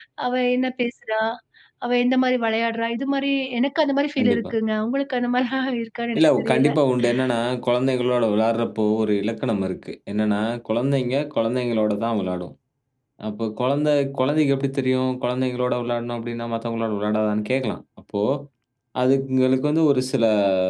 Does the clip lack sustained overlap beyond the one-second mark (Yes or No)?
Yes